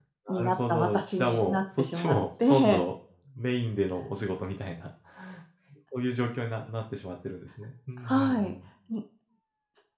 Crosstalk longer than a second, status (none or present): present